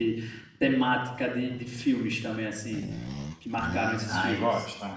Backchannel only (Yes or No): No